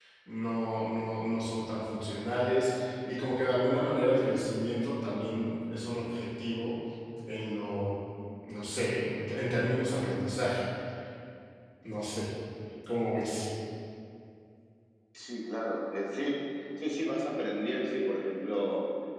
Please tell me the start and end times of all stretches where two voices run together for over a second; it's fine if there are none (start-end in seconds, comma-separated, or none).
none